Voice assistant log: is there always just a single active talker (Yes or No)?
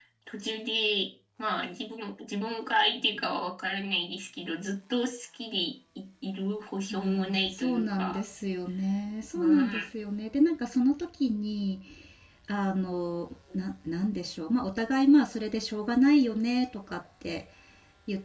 No